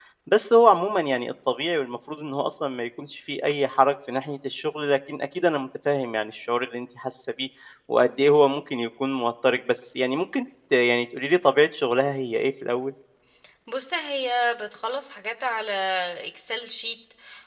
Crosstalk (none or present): none